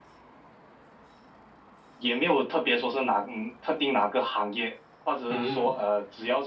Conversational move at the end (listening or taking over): listening